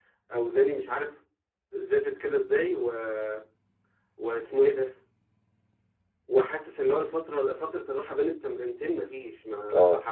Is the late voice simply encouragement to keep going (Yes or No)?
Yes